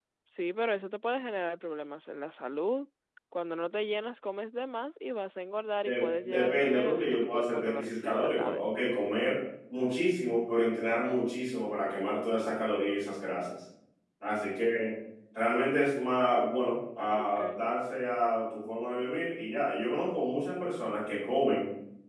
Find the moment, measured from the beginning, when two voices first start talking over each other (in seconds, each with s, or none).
5.8 s